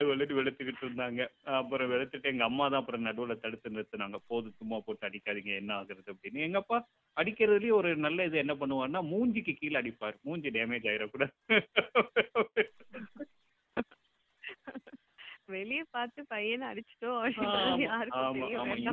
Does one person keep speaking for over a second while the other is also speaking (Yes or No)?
Yes